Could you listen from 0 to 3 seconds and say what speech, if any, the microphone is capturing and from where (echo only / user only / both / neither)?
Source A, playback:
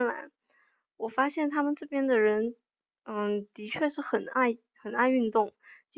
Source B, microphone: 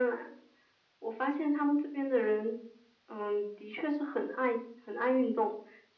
echo only